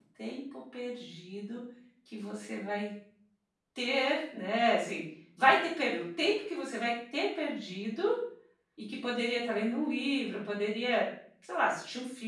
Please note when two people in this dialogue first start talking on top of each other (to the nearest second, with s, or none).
none